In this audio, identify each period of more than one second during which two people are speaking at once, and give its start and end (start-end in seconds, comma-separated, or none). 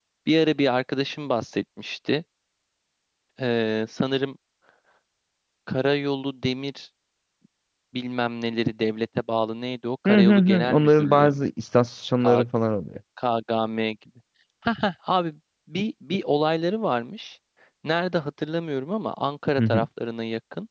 10.1-11.5